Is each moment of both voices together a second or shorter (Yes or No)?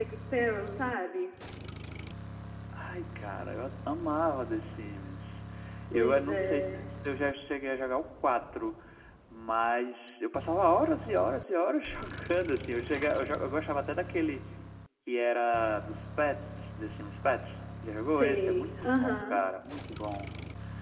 No